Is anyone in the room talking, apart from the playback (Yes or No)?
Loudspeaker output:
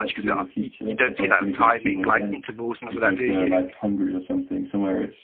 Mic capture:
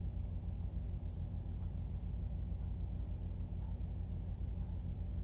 No